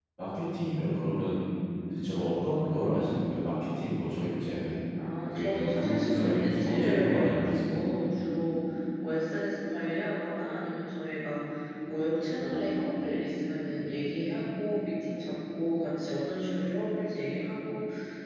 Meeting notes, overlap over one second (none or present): present